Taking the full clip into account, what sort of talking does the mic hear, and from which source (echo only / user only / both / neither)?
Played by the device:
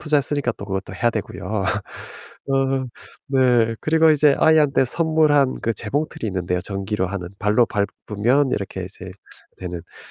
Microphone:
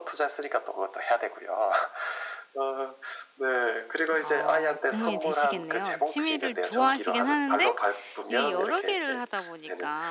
both